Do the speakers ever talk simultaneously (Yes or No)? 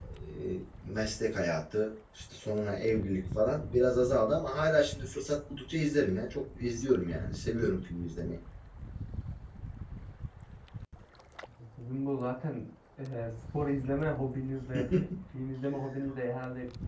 No